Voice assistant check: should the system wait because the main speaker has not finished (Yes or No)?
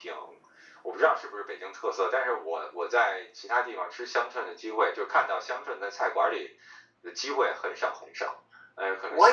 No